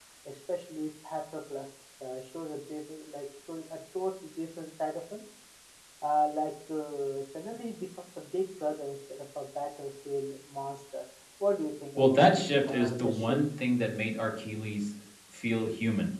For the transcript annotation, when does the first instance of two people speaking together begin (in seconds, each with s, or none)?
12.0 s